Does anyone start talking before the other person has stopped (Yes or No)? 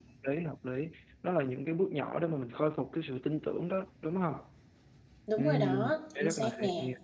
Yes